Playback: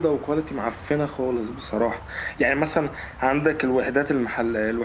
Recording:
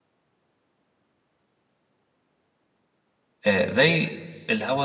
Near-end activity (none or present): present